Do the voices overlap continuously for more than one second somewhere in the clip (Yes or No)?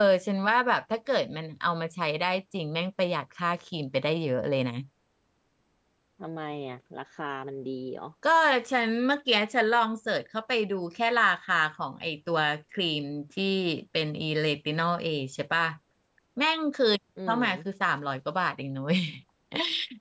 No